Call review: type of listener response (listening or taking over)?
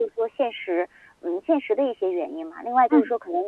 listening